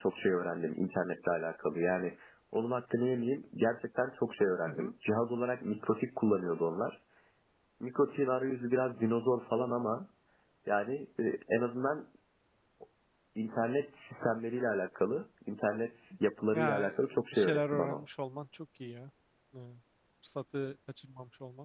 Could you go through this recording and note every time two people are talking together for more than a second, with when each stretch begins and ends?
16.5-18.0

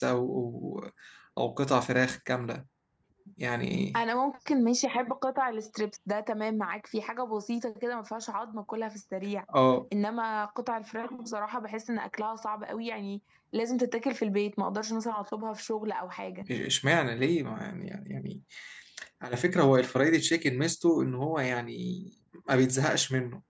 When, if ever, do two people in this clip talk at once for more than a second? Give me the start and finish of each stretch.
none

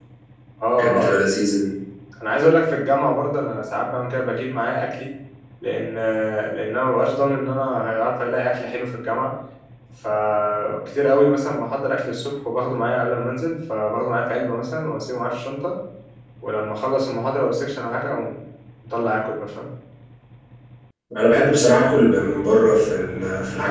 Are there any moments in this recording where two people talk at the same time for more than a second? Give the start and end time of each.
none

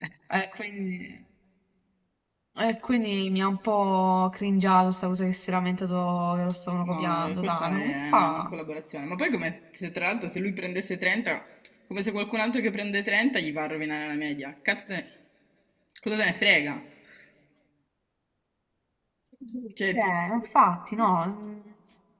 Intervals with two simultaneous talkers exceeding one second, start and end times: 6.8-8.4

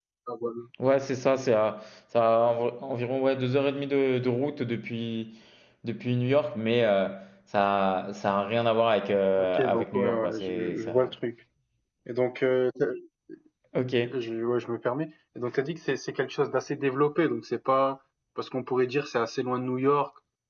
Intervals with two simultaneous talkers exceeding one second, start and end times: 9.4-11.1

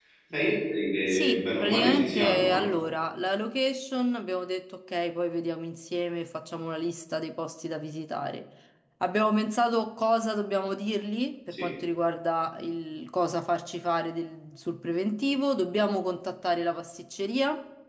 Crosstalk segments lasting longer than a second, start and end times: 1.1-2.6

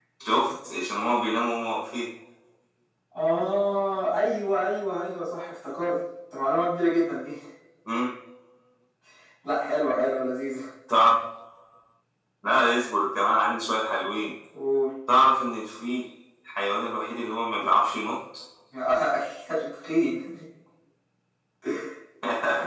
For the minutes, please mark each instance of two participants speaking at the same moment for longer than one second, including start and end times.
none

